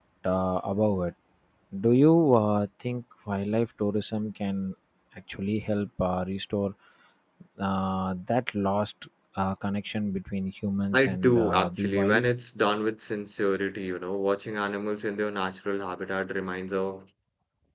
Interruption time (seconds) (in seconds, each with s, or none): 10.9 s